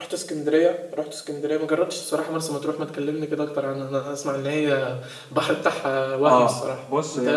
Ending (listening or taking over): taking over